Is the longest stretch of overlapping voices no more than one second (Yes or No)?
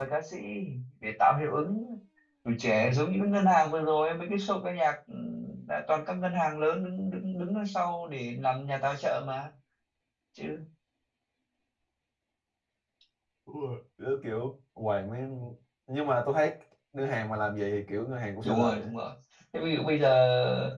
Yes